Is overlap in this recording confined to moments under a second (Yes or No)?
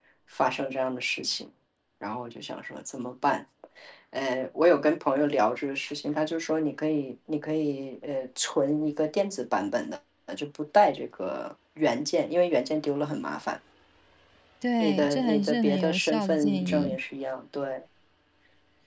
No